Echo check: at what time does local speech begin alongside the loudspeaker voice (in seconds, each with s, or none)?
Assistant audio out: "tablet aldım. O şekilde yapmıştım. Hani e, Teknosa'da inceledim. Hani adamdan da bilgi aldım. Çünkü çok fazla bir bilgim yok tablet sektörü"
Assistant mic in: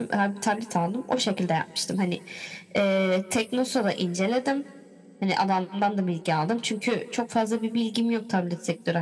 none